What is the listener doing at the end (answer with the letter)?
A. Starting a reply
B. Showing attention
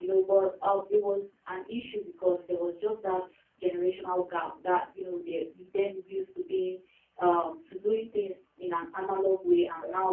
B